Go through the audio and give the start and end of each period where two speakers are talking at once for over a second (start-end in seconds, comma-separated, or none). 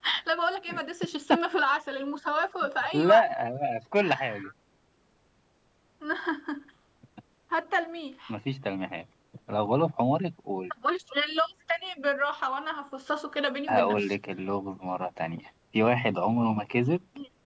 none